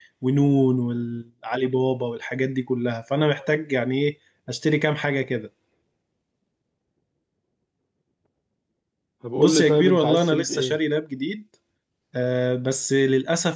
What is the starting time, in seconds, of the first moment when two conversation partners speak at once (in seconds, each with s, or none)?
9.4 s